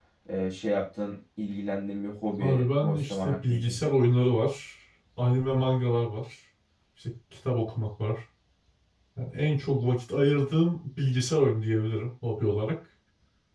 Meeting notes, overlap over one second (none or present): present